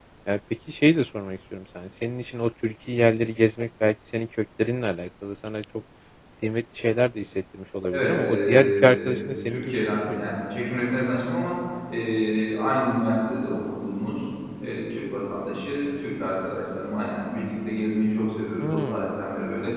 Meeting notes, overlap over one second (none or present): present